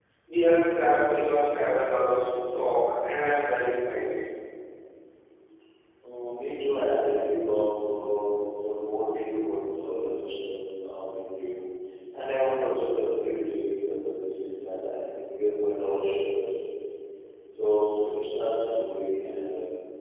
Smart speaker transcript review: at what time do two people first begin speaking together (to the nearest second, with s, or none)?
none